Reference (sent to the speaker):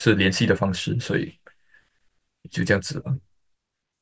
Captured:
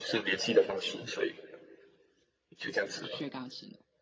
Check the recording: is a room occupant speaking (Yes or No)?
Yes